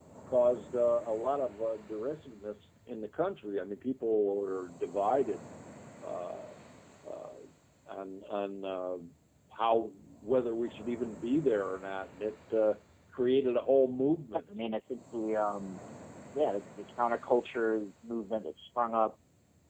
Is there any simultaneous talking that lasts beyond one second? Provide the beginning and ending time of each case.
none

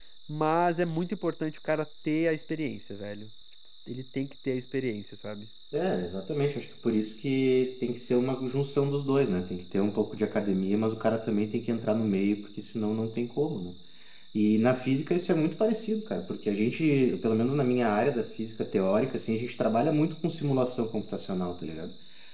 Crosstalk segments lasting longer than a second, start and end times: none

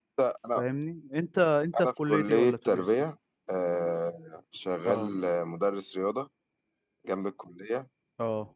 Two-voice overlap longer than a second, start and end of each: 1.8-3.0

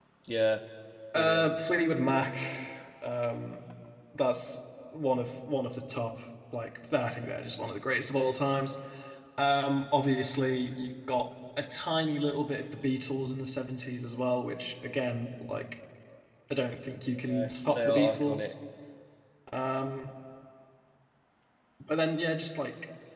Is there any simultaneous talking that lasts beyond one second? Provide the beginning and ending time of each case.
17.3-18.5

